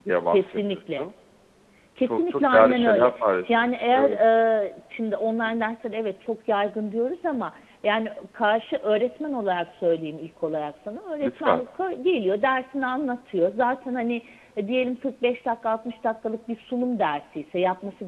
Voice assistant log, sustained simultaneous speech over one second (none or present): present